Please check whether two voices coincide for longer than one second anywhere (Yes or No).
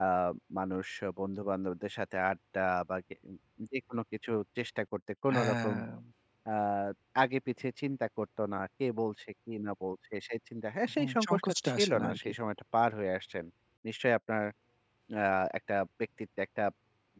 Yes